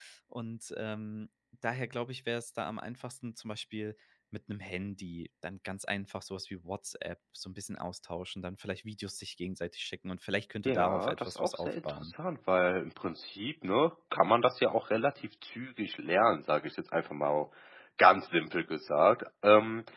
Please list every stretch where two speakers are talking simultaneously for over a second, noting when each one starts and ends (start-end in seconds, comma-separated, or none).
10.6-12.1